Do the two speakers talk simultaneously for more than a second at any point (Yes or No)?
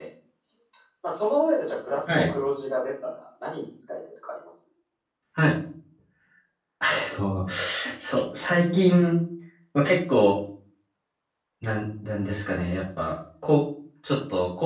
No